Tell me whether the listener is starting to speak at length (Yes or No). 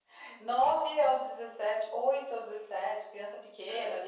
No